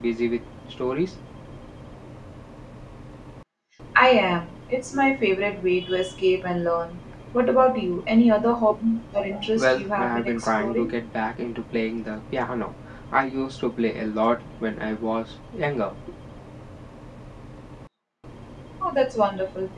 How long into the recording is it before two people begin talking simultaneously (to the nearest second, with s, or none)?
10 s